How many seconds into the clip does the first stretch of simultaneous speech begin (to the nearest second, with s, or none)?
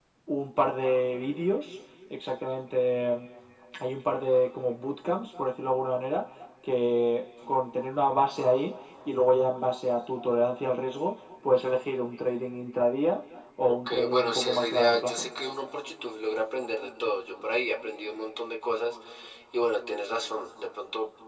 14 s